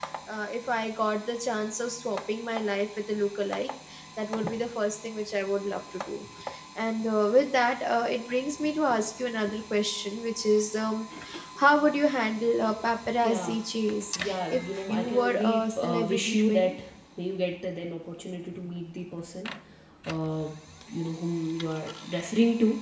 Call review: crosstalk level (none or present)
present